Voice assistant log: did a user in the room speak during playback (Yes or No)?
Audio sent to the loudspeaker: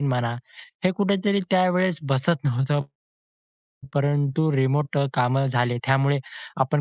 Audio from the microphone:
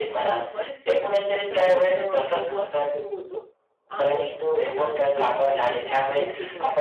Yes